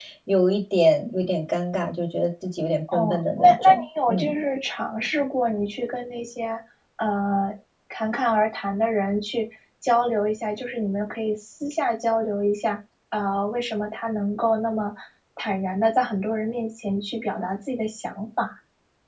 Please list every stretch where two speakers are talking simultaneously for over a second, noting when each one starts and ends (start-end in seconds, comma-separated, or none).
2.9-4.3